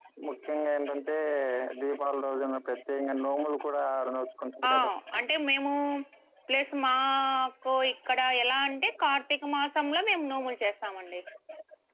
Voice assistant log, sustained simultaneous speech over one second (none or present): none